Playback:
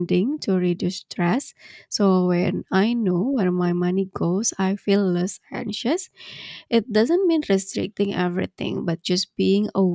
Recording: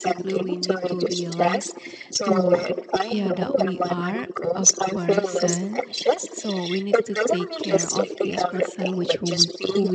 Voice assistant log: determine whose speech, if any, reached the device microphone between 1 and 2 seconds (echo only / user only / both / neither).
both